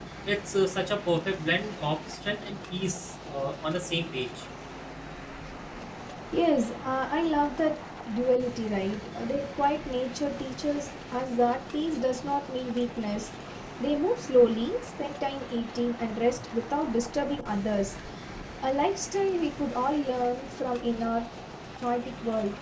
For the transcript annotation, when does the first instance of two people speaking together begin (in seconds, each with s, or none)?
none